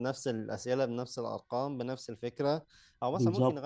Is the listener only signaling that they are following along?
Yes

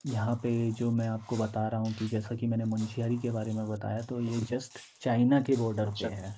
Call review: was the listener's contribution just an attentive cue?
No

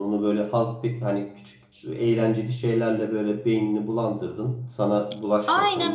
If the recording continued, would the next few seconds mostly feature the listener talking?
Yes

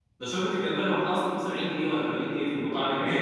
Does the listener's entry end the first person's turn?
Yes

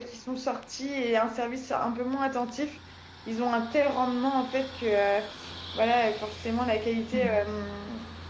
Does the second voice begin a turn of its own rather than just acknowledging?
No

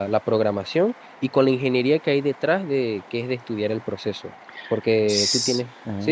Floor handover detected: Yes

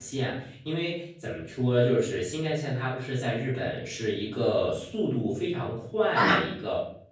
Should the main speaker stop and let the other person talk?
No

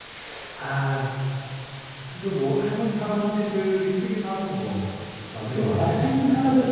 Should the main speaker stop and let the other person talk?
Yes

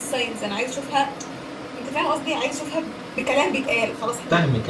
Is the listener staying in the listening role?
No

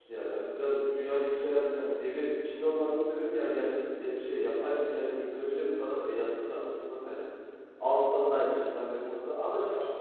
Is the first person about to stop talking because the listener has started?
No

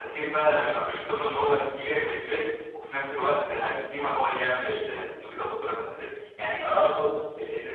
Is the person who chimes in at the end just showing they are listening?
Yes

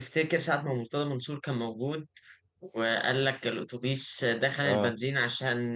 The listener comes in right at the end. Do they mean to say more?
No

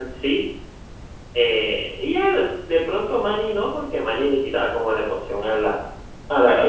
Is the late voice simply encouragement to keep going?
No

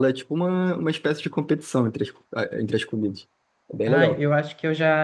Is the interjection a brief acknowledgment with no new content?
No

